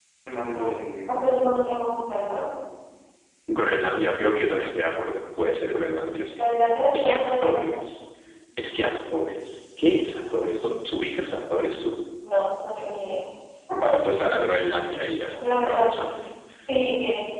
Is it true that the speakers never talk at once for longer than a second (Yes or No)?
No